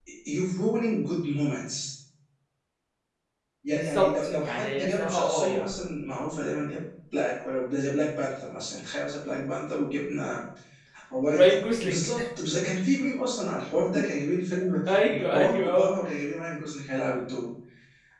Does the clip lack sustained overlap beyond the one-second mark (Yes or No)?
No